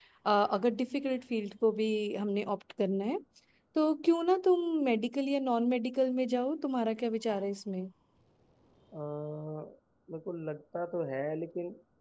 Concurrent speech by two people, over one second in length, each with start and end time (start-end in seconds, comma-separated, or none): none